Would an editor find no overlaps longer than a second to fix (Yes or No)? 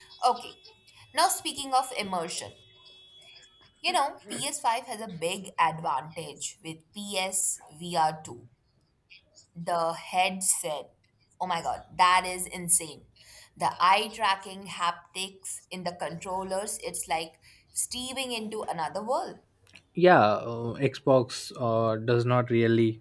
Yes